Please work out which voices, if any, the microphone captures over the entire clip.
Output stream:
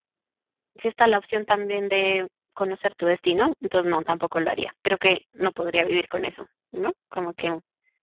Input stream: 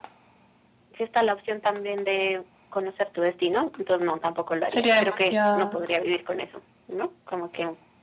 both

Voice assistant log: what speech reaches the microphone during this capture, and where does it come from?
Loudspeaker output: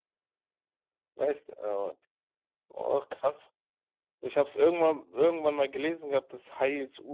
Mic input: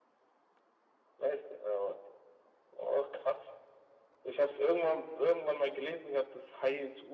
echo only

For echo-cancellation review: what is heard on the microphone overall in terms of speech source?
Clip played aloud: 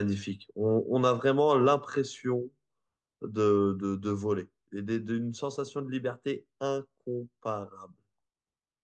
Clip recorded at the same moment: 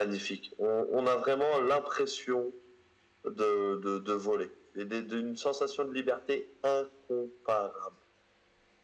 echo only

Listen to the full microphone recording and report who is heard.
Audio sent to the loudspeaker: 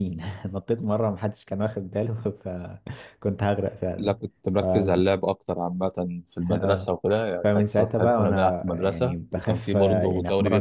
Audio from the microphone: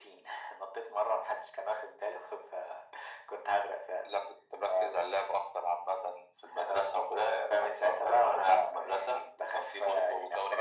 echo only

